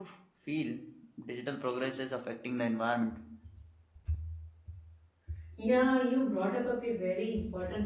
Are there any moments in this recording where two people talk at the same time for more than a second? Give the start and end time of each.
none

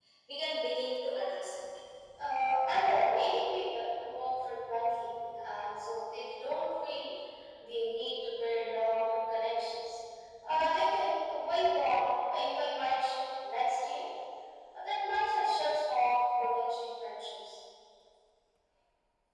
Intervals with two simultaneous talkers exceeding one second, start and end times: none

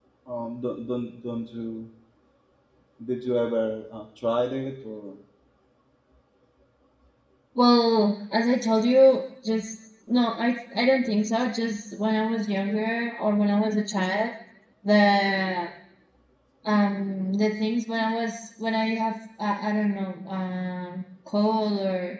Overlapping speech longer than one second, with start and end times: none

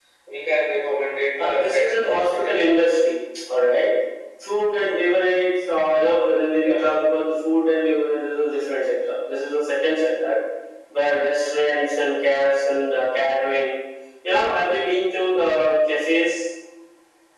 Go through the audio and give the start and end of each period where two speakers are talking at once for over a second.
1.4-2.8

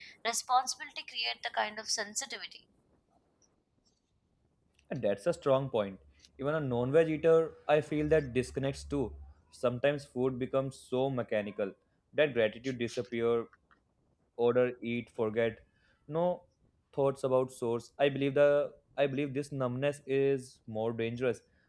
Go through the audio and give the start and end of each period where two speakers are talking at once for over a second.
none

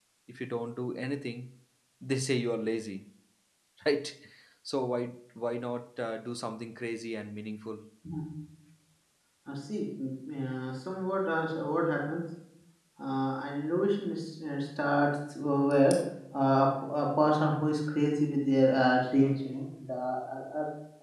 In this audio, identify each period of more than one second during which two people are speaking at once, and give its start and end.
none

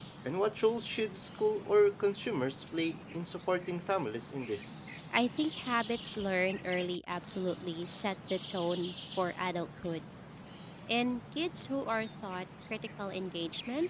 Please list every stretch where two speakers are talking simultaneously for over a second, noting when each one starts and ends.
none

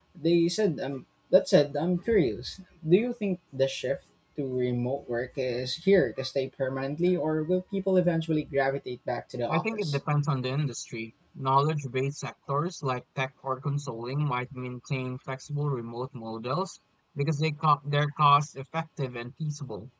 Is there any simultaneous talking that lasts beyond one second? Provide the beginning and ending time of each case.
none

